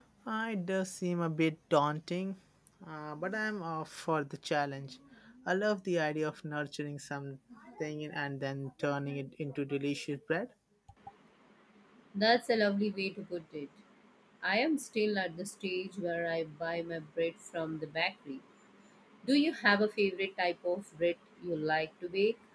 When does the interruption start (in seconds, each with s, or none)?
none